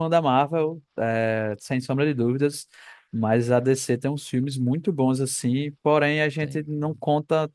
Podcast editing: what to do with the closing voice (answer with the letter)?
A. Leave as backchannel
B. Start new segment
A